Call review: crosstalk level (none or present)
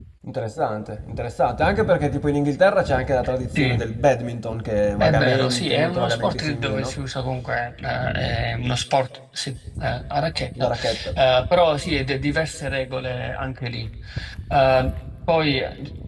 present